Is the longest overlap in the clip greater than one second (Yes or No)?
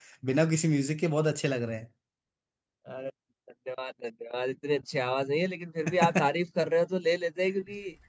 No